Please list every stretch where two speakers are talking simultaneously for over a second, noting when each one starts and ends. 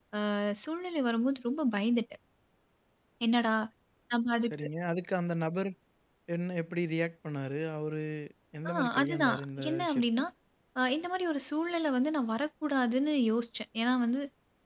8.7-10.0

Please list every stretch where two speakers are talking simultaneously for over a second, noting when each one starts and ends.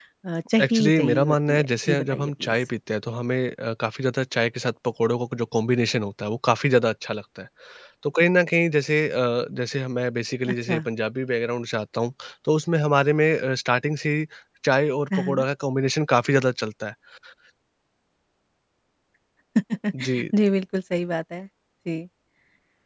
0.6-2.5

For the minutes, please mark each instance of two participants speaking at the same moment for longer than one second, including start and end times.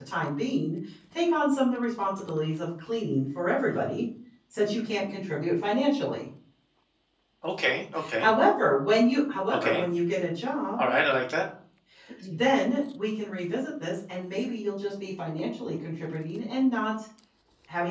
none

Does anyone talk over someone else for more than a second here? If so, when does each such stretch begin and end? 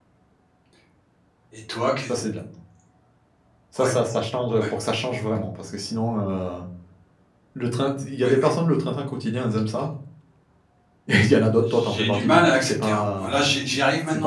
11.6-13.5

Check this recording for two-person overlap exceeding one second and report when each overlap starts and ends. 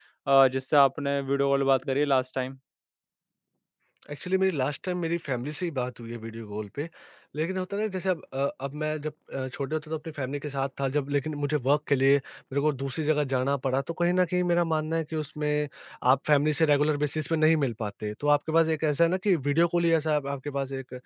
none

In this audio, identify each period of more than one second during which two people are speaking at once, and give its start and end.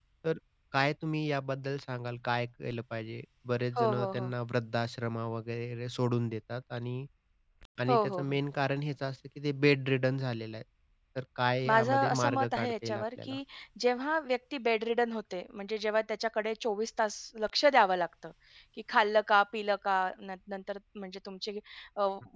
11.7-13.3

